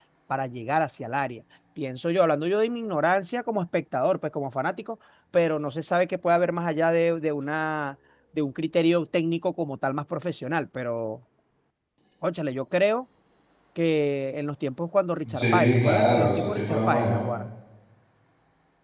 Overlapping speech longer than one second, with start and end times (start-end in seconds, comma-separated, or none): 15.4-17.2